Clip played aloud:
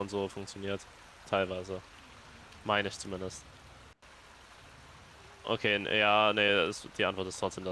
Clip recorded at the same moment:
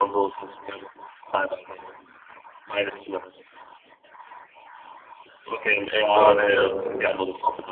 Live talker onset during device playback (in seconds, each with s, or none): 6.1 s